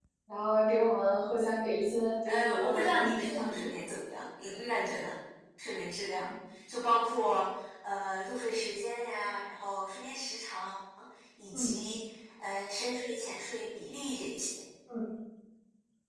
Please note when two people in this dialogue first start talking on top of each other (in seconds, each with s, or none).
2.3 s